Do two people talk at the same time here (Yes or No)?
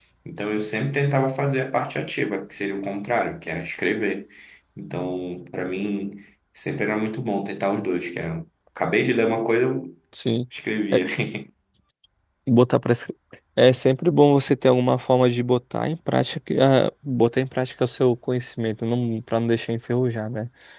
No